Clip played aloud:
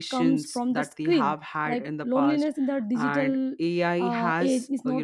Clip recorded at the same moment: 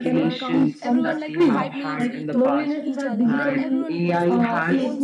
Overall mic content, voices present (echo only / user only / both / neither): both